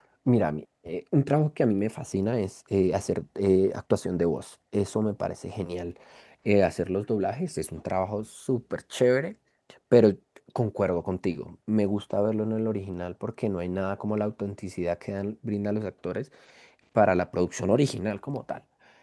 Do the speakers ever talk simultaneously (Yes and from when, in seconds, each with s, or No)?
No